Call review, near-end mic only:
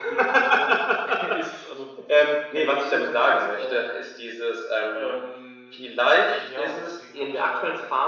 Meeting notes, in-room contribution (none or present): none